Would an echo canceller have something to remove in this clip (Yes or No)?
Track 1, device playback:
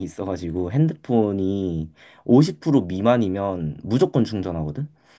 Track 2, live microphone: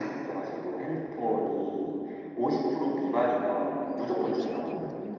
Yes